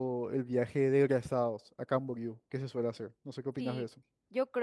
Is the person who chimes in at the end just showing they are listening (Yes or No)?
No